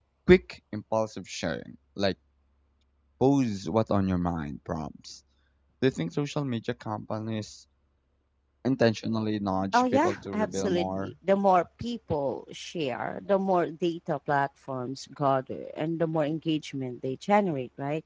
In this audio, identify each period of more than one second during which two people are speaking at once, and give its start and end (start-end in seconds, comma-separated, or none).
9.7-11.1